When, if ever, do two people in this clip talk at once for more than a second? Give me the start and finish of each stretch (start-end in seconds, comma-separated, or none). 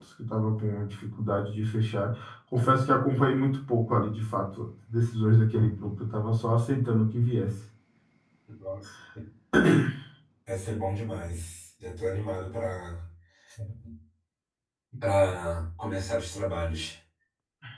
none